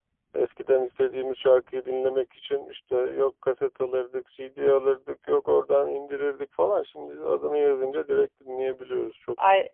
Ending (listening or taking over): taking over